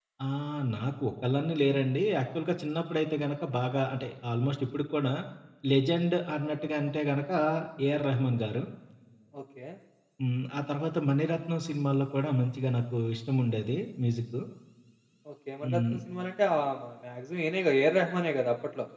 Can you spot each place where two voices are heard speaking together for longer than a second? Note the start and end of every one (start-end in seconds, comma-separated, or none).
none